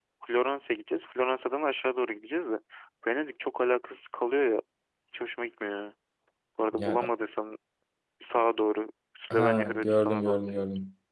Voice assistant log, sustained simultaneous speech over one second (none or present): present